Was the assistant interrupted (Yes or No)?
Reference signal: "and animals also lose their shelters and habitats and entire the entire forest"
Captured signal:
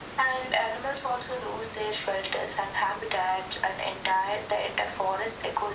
No